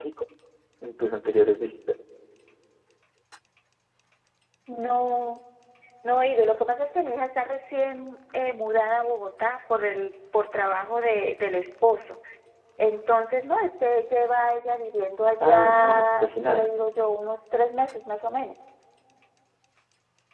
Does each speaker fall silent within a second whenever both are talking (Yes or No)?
No